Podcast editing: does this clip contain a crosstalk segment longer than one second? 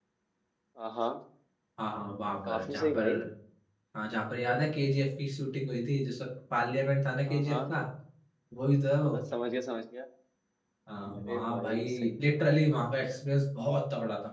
Yes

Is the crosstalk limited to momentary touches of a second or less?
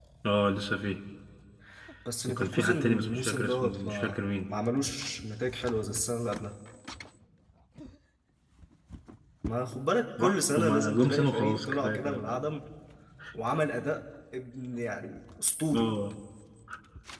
No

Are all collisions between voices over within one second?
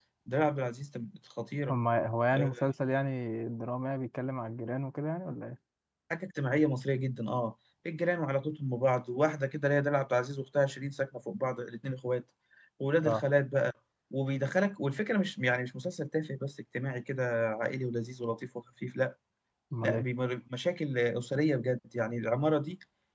Yes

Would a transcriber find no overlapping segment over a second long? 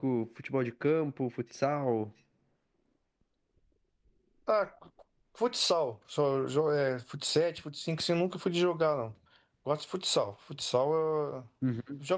Yes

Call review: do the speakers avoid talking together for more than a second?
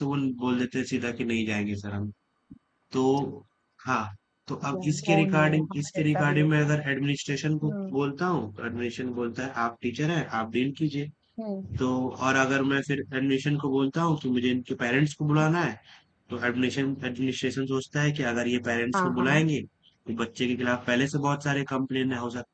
No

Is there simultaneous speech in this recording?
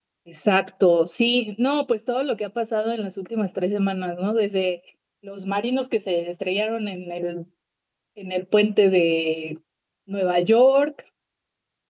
No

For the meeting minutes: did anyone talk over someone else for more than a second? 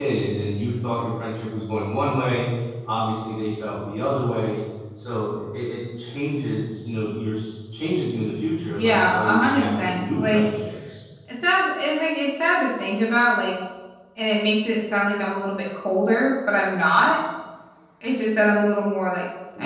Yes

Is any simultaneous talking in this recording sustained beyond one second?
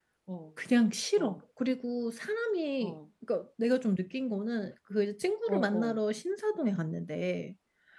No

